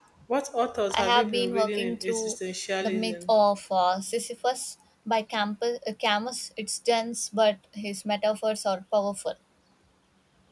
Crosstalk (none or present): present